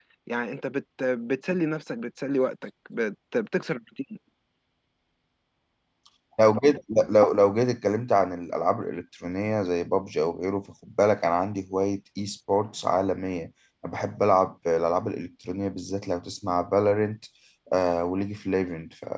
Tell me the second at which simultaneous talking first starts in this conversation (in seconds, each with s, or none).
none